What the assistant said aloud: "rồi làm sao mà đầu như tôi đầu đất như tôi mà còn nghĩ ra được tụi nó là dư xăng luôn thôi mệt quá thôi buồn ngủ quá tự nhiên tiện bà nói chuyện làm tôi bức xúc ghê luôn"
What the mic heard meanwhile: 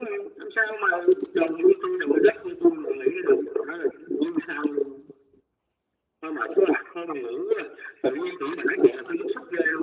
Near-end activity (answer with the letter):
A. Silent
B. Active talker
A